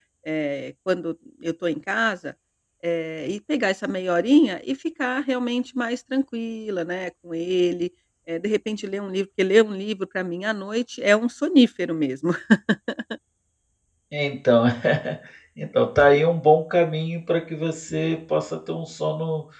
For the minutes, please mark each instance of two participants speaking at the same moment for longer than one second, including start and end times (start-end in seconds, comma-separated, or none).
none